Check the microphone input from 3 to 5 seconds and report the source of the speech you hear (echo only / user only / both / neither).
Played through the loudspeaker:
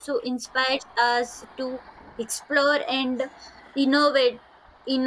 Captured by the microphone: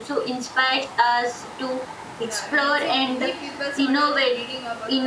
both